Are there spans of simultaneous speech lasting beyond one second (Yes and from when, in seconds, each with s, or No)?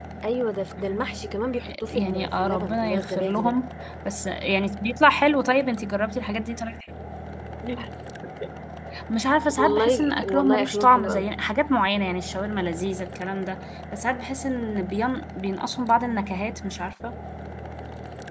Yes, from 1.9 s